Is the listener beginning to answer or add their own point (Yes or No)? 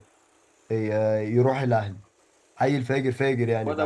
Yes